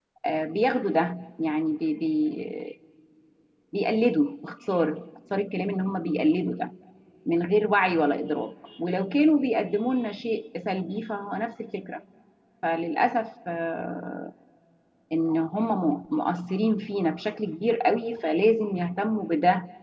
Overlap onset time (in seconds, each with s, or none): none